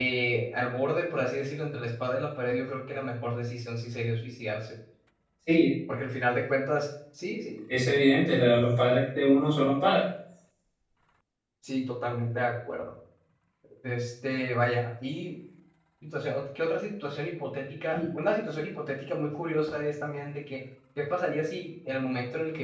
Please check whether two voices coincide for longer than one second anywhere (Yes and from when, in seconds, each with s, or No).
No